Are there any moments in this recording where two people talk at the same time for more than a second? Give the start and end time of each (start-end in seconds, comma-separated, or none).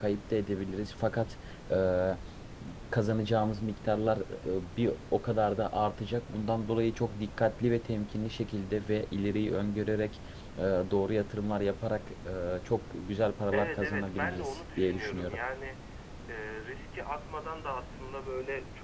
13.5-15.4